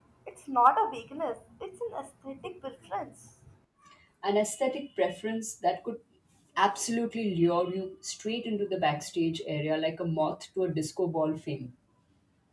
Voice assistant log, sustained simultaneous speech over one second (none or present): none